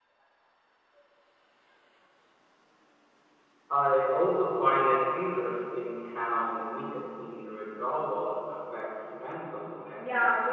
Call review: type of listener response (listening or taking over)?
taking over